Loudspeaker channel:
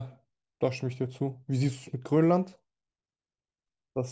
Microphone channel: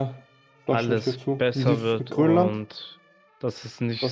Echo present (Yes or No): Yes